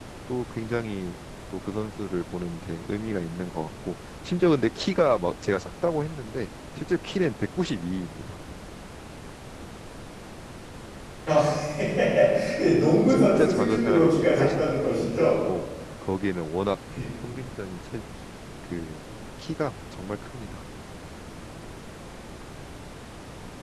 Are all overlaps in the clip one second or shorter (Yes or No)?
No